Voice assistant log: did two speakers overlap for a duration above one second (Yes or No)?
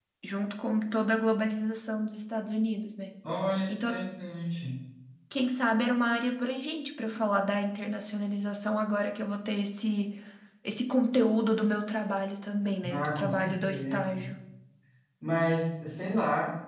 Yes